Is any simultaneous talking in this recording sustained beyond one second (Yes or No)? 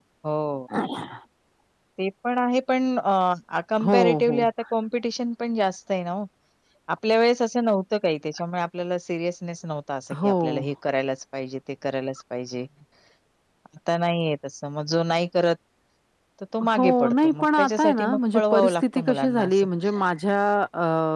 Yes